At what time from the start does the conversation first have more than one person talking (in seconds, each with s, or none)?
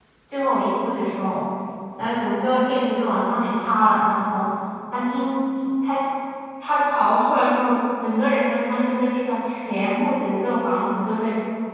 none